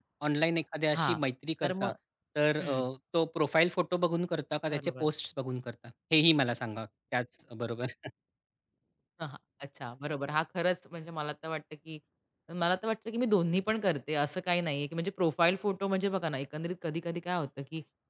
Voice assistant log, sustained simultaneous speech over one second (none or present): none